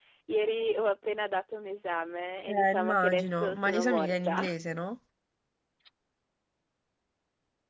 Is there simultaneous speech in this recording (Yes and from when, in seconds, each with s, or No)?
Yes, from 2.5 s